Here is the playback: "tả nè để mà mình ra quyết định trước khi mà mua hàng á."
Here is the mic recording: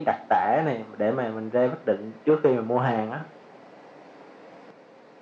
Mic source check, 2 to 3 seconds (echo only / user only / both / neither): echo only